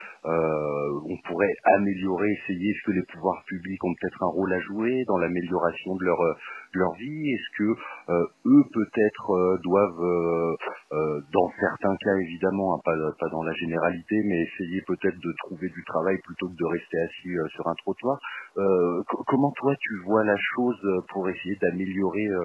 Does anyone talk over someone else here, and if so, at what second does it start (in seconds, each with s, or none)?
none